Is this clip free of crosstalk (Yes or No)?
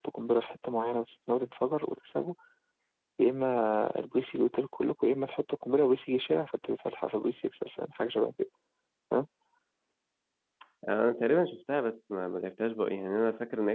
Yes